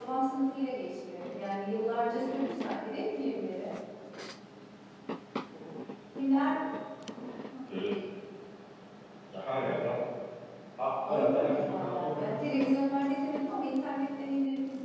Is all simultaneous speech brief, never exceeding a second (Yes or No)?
No